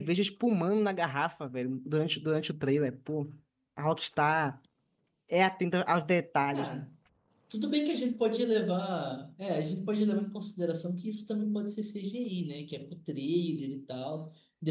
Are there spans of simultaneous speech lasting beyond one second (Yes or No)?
No